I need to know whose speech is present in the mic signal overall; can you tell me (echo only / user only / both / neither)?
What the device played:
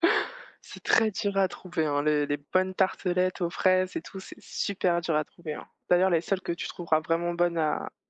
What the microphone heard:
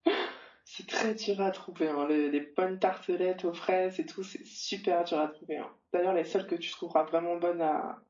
echo only